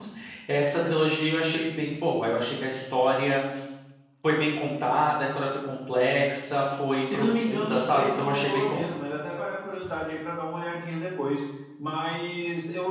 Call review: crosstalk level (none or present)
present